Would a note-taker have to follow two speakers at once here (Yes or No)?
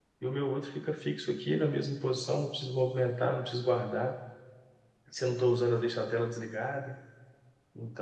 No